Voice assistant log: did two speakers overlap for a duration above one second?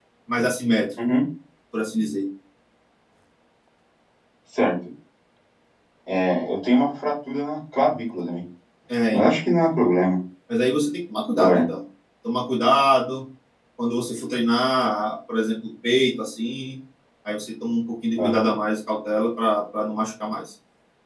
No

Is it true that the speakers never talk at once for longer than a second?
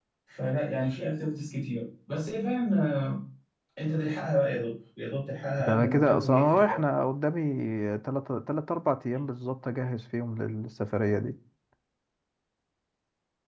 No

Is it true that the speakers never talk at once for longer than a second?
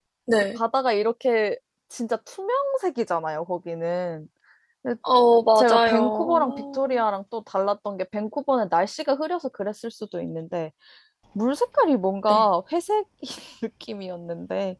No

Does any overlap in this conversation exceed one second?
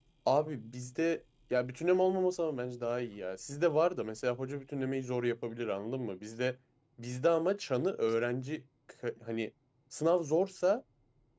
No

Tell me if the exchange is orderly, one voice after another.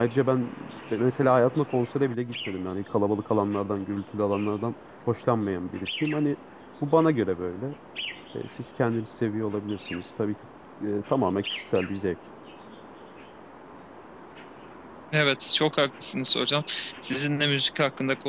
Yes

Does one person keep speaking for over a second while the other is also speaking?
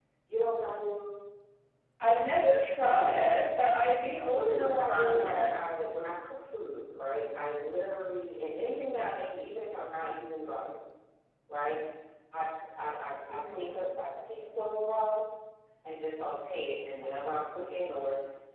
Yes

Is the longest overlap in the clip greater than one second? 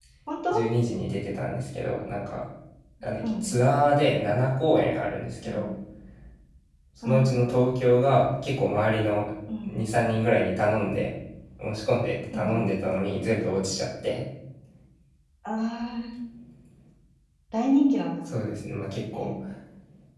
No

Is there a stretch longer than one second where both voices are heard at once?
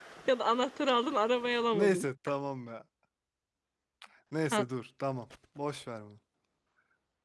No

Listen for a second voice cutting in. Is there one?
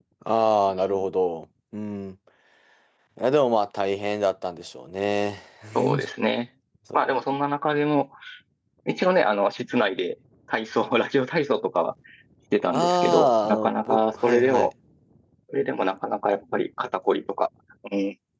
Yes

